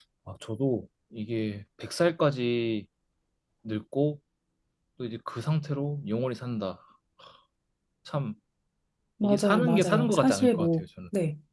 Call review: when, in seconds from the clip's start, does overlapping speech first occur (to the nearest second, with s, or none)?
9 s